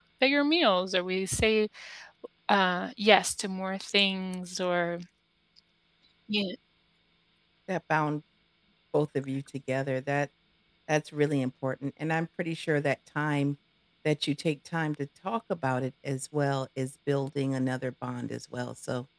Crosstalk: none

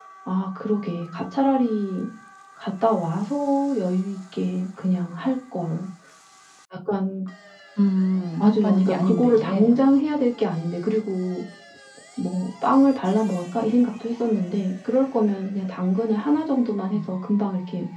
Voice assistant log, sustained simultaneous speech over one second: present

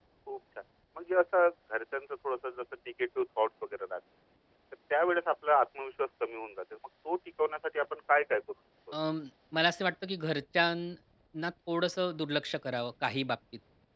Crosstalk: none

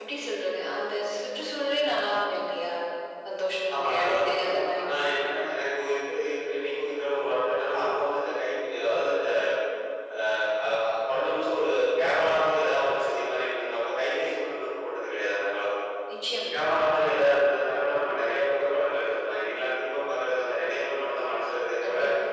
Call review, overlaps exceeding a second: present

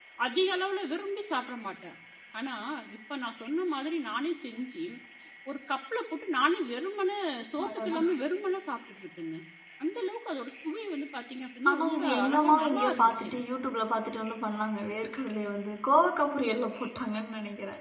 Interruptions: present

